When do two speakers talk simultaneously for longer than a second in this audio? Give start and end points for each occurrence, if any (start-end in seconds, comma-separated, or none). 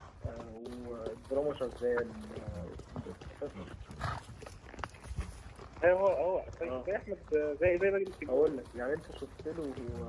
none